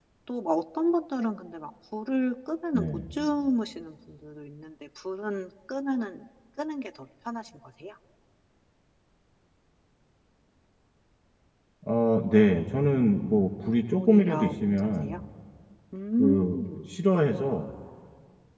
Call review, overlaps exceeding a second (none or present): present